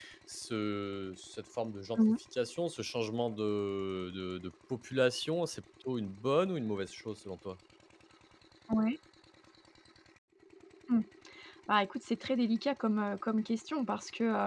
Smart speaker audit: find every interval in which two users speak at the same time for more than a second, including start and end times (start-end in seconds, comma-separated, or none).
none